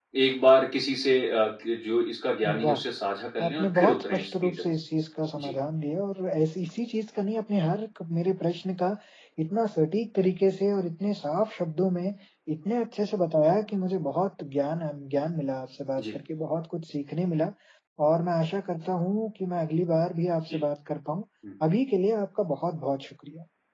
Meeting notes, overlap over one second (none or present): present